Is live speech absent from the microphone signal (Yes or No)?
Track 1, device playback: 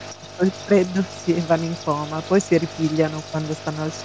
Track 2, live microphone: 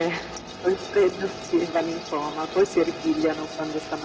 Yes